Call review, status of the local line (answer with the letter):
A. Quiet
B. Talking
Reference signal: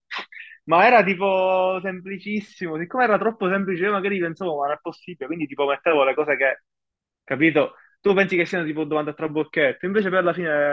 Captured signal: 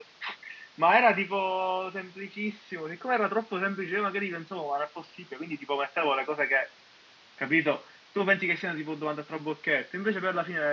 A